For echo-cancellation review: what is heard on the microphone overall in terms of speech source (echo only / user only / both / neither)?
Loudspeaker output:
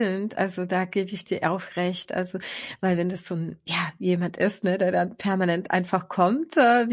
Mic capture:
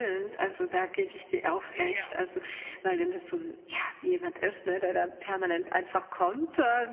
both